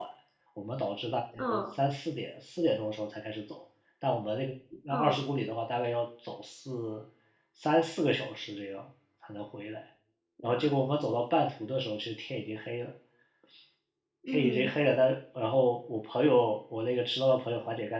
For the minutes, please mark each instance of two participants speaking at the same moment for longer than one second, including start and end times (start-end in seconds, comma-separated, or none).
none